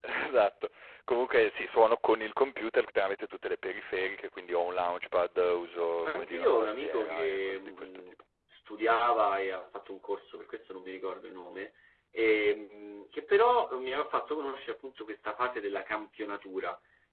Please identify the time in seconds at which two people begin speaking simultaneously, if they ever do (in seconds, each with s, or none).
6.0 s